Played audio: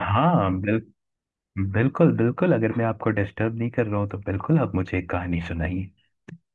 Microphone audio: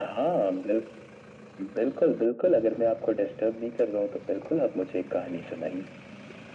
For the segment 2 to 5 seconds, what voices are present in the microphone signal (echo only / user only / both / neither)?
echo only